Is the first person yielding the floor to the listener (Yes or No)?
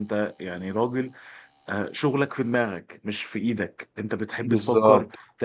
No